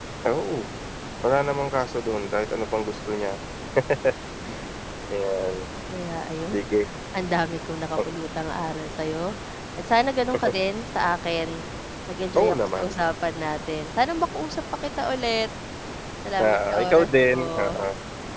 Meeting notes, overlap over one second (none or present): present